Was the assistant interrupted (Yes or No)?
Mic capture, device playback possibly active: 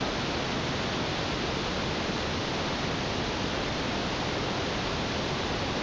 No